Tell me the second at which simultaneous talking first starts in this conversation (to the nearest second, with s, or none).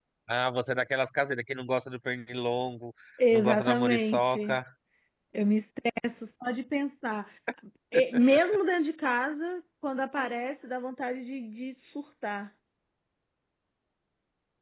3 s